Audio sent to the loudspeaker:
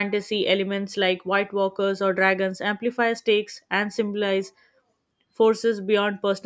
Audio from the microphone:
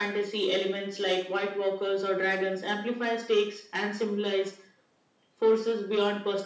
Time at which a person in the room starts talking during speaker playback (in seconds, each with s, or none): none